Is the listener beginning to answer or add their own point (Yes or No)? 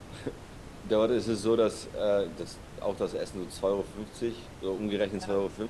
No